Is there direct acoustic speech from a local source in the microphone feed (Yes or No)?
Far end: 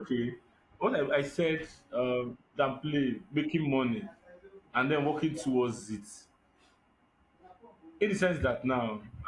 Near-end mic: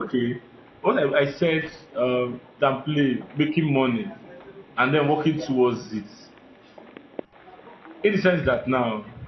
No